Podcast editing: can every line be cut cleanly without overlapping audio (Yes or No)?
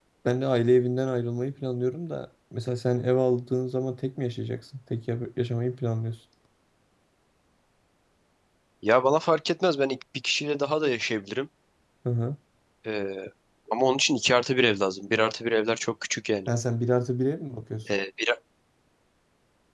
Yes